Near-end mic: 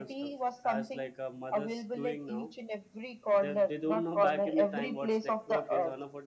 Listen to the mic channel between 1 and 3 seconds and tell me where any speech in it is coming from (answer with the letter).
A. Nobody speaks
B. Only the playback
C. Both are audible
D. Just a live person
C